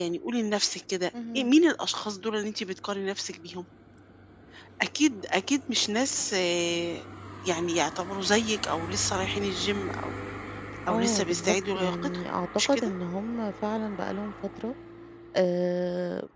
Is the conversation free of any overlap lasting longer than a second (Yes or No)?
No